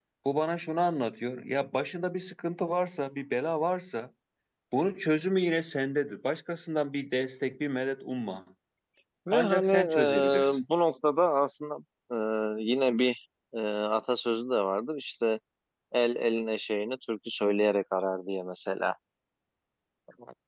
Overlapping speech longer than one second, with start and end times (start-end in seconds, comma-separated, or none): 9.3-10.6